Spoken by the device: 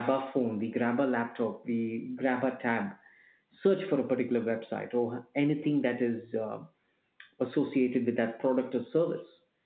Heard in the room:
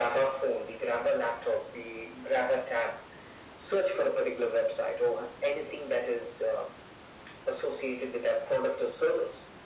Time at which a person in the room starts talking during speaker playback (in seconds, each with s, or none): none